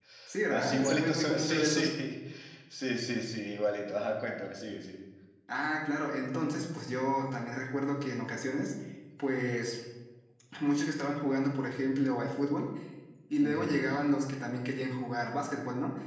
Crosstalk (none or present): present